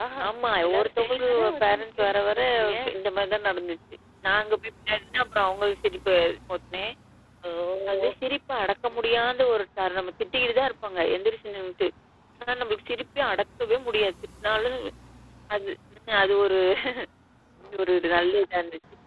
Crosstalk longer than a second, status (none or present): present